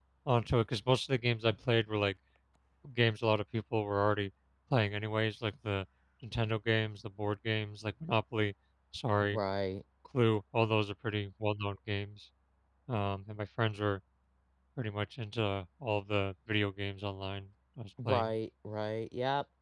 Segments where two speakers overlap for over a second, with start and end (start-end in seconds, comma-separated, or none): none